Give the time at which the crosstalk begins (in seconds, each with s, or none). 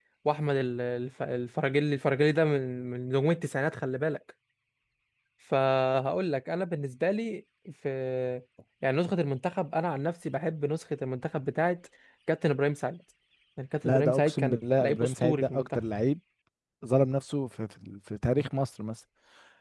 13.8 s